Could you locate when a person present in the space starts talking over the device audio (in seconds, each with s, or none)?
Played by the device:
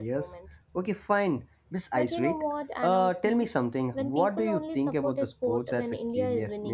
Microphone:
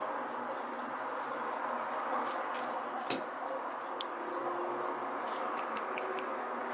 none